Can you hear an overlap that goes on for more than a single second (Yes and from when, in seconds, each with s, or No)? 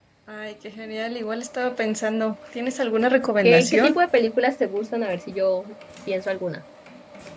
No